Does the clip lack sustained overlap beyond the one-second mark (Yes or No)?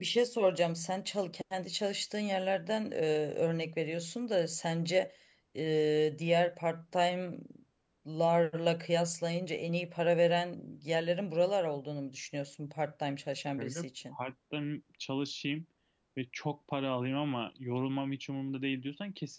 Yes